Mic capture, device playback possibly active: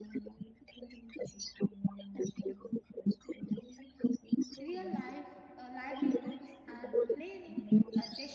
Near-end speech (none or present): present